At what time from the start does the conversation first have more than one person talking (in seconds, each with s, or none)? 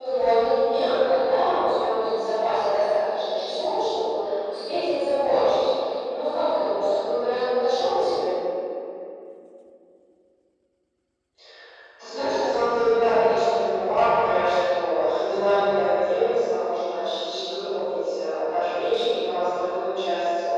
none